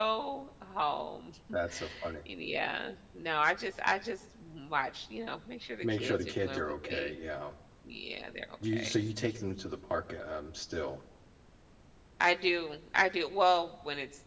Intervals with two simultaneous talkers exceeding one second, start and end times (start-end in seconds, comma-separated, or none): 5.8-7.1